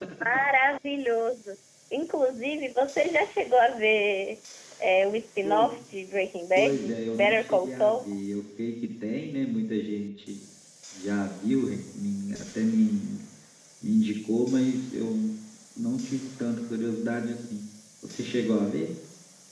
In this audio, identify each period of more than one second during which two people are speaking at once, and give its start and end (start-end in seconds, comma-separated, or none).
6.5-8.0